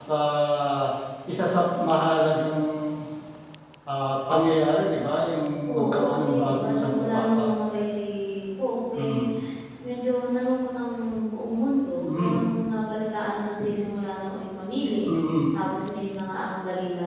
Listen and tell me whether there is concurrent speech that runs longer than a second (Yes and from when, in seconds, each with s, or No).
Yes, from 5.7 s